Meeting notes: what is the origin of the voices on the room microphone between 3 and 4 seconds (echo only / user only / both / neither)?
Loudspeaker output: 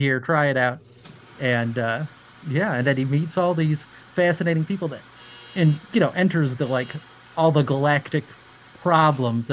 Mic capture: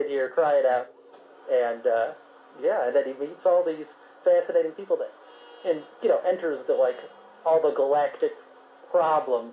echo only